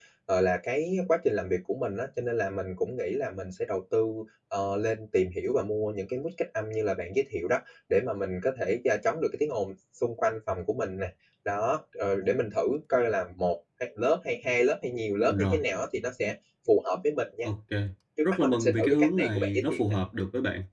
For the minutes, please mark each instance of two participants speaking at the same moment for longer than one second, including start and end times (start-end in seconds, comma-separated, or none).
18.2-19.8